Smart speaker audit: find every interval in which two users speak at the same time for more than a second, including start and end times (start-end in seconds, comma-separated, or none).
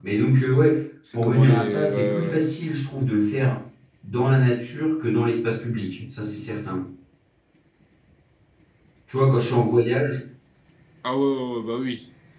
1.1-2.4